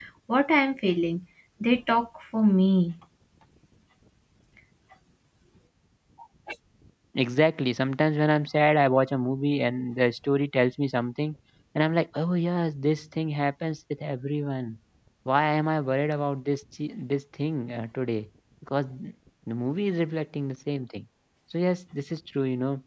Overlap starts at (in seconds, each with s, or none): none